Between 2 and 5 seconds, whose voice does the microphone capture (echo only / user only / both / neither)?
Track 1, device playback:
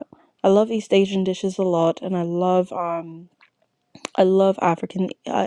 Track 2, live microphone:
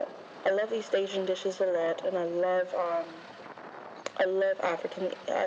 echo only